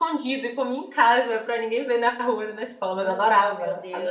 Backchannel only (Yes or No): No